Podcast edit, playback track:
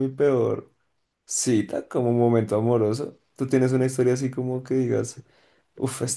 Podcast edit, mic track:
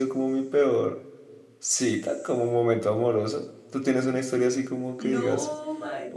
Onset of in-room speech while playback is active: 5 s

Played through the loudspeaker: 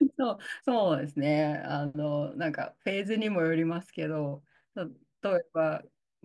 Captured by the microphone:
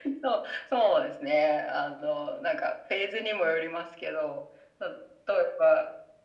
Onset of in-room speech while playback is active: none

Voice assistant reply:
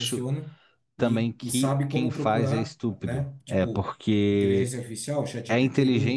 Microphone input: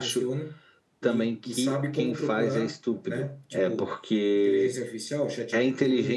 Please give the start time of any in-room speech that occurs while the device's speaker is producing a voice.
none

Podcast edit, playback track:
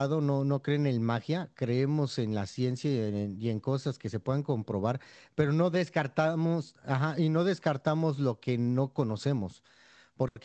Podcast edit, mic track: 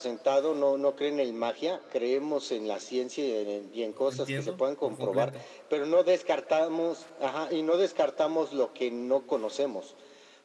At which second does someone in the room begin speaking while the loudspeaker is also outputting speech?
4 s

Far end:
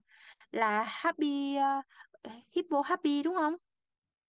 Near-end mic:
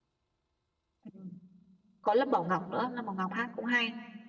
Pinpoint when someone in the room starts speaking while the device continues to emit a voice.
1 s

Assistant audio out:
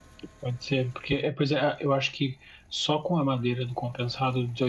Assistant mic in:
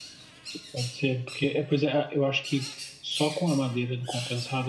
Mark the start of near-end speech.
none

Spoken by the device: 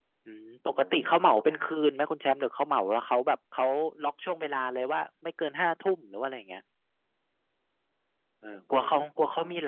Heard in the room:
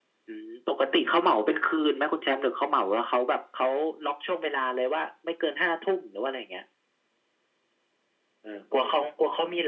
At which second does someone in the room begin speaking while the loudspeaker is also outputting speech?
none

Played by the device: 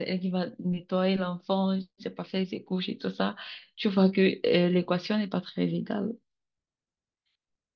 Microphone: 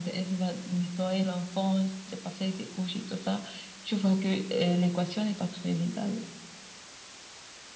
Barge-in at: none

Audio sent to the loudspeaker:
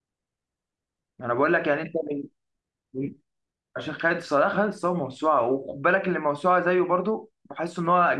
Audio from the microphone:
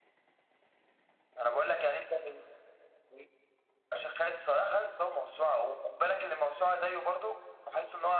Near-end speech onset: none

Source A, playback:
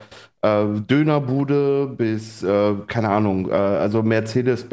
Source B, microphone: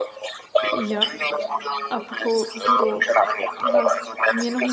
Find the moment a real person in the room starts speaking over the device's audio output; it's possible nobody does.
1 s

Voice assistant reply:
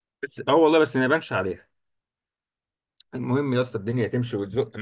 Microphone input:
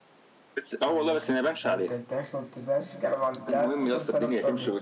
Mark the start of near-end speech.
1 s

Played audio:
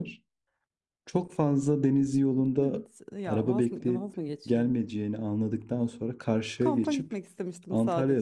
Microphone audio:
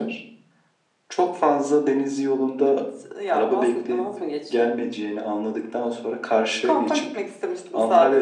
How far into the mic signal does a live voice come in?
none

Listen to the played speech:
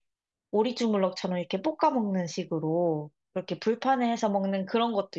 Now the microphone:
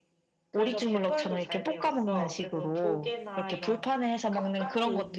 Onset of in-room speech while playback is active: 0 s

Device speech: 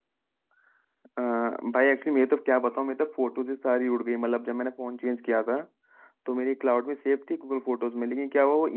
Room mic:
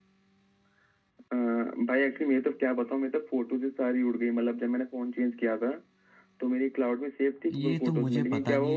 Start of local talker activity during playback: 8 s

